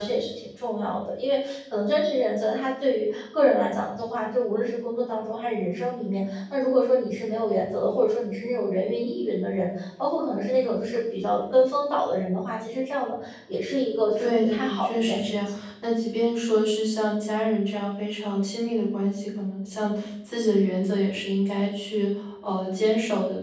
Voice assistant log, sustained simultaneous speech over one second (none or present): present